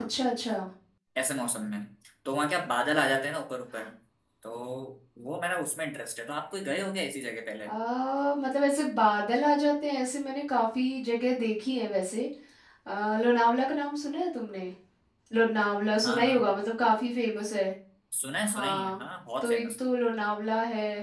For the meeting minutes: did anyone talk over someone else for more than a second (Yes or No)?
No